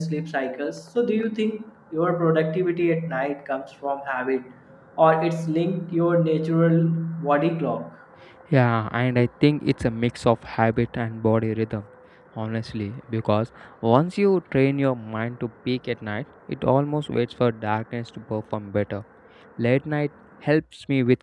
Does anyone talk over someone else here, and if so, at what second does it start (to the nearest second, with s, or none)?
none